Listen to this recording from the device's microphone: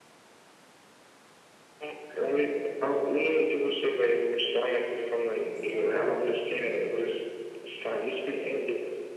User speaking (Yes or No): Yes